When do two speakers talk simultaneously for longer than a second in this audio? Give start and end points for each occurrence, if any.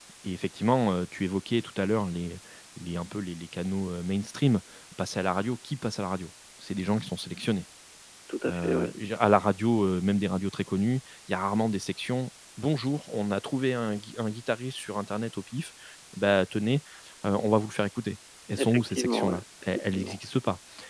18.6-20.2

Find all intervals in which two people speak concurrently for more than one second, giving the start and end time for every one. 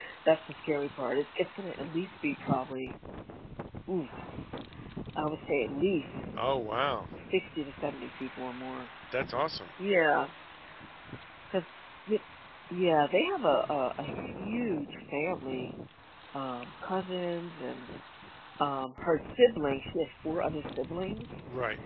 none

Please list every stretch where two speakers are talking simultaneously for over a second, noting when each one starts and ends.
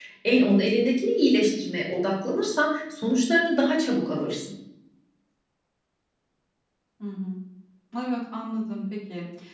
none

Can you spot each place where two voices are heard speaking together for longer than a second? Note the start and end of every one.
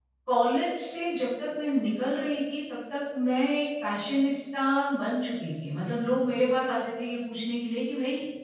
none

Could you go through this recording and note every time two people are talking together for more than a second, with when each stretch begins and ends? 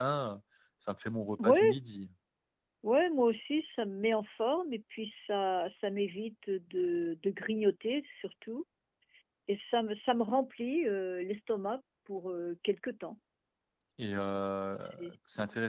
none

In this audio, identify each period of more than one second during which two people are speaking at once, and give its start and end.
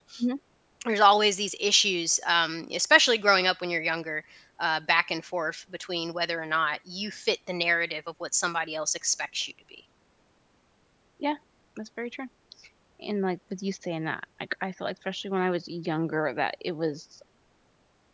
none

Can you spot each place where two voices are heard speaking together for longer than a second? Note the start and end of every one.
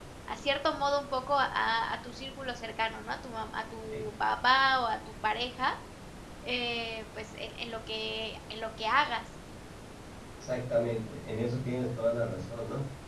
none

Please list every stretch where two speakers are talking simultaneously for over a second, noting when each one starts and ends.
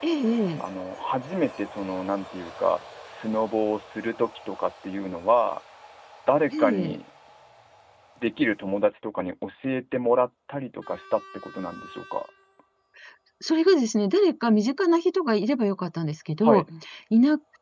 none

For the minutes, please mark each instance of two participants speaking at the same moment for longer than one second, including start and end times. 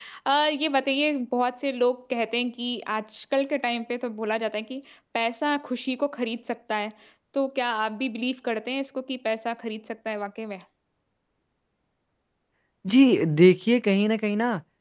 none

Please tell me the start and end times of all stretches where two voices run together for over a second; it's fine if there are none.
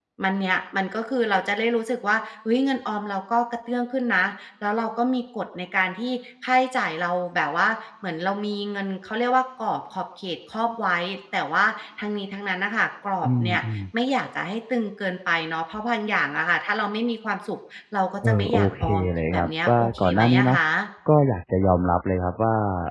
18.2-20.6

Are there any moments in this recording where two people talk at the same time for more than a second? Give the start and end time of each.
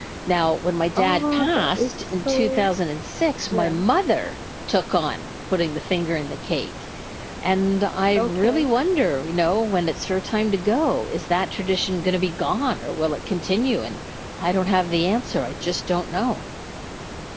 1.0-2.7

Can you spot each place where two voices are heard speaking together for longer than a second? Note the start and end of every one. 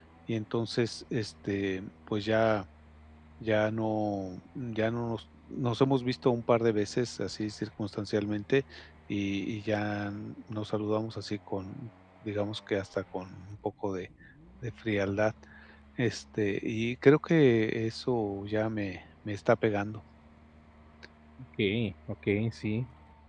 none

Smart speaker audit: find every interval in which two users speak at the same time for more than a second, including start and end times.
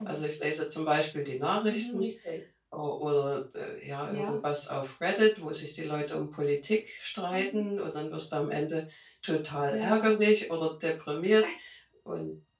none

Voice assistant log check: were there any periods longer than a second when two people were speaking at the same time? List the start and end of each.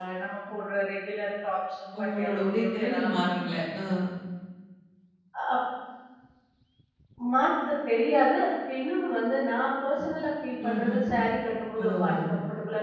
2.0-3.5

